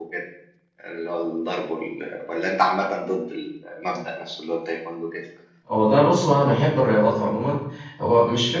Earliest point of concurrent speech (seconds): none

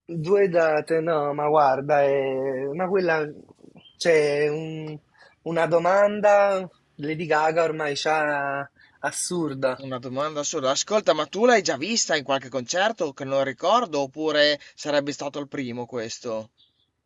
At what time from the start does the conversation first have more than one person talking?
none

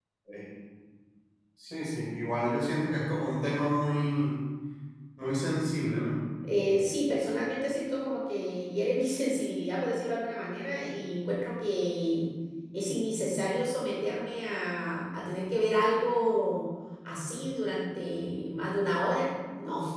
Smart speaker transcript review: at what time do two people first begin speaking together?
none

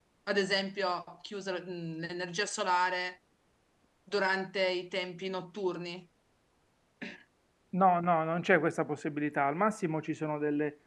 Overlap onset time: none

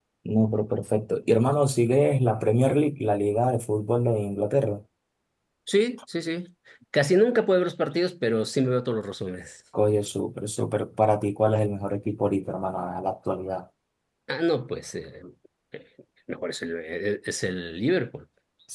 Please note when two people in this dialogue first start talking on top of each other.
none

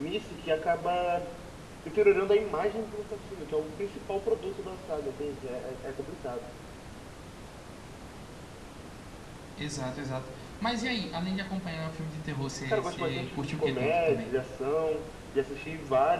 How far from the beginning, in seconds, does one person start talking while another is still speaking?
12.7 s

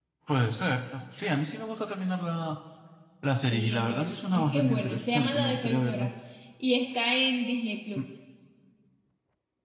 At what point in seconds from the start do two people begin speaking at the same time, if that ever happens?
3.5 s

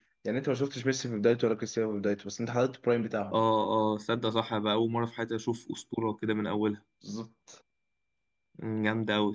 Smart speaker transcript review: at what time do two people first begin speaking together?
none

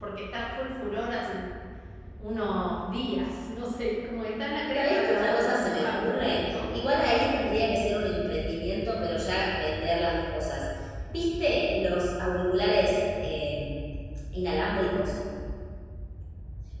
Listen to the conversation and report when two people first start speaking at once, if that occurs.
4.8 s

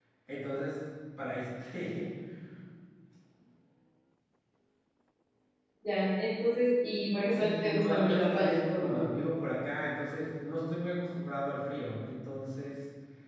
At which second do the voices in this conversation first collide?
7.3 s

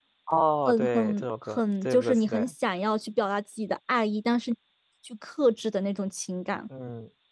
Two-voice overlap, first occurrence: 0.7 s

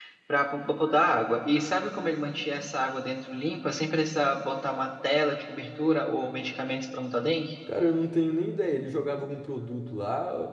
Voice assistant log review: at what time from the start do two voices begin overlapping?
none

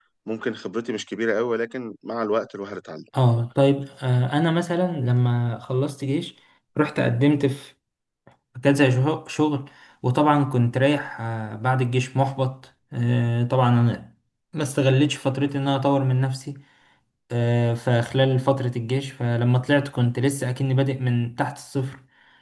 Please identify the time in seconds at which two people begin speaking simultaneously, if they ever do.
none

